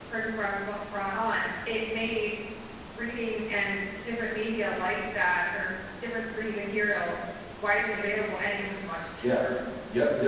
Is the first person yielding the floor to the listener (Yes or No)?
Yes